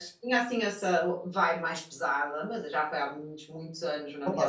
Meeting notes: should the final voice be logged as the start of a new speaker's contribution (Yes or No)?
Yes